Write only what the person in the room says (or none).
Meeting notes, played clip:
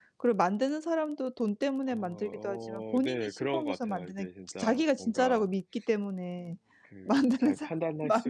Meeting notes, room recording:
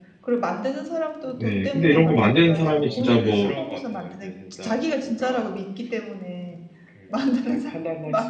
네 근데 이런 거 만드는 사람이 진짜 뭐